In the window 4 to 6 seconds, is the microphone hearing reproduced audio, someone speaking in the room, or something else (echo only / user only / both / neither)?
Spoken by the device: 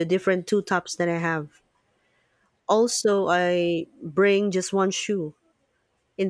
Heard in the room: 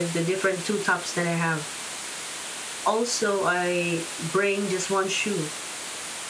echo only